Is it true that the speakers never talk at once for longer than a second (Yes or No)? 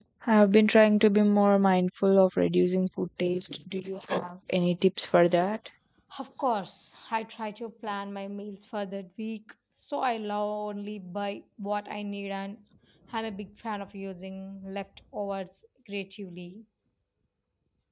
Yes